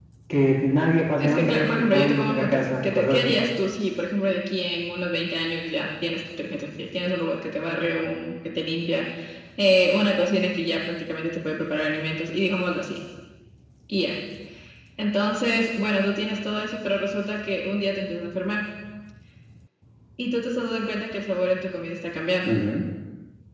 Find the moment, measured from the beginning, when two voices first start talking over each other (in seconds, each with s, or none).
1.2 s